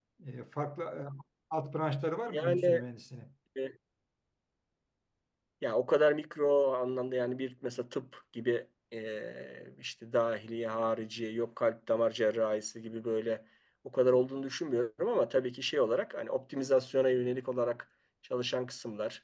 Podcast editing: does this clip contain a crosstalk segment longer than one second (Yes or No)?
No